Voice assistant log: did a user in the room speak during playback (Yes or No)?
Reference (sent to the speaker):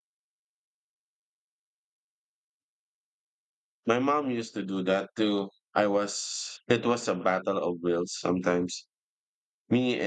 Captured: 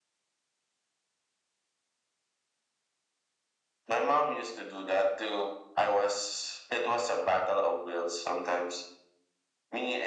No